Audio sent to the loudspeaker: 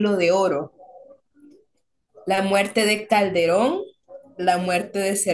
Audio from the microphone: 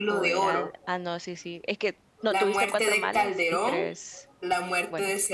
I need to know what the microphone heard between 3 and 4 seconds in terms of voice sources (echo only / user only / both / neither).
both